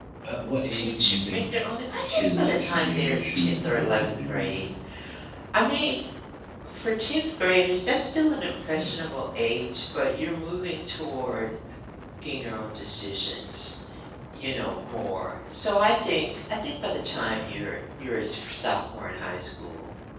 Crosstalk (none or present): present